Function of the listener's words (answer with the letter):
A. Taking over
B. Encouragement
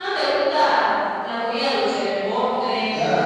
A